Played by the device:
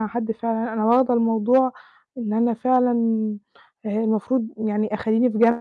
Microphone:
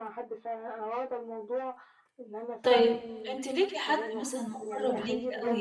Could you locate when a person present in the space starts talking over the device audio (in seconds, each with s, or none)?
2.6 s